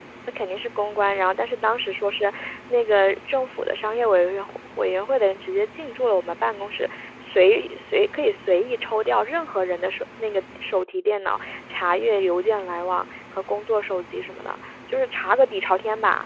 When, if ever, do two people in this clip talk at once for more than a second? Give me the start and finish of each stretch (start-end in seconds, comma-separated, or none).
none